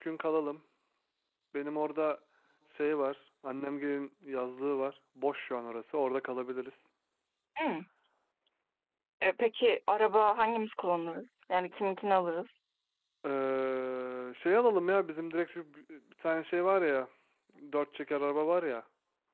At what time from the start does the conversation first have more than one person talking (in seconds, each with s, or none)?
none